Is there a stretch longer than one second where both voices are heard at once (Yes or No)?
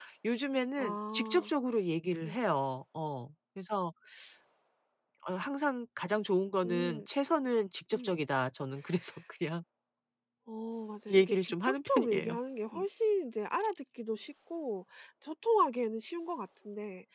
Yes